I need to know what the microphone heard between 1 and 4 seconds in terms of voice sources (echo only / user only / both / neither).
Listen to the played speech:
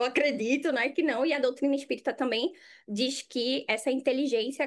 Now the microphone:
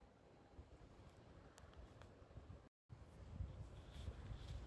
neither